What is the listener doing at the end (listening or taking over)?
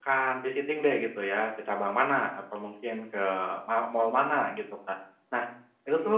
listening